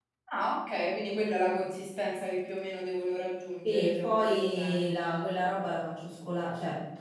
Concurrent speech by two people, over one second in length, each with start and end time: 3.6-4.9

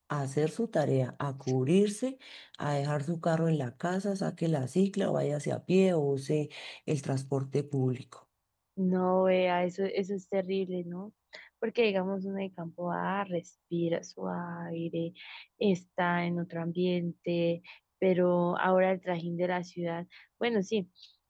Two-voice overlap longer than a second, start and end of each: none

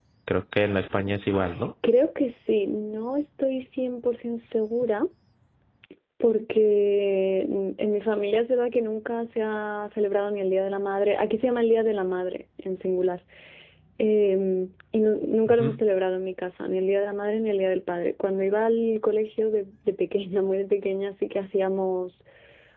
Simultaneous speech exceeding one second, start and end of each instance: none

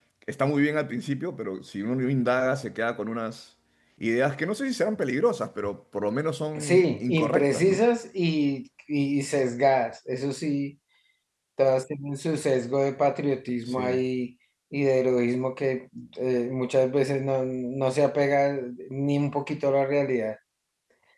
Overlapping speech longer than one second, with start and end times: 6.6-7.8

